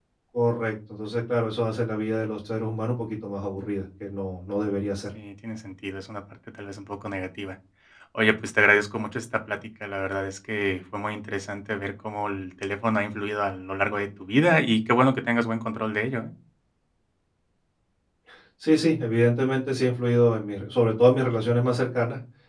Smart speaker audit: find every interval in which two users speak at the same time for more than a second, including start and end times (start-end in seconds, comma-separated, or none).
none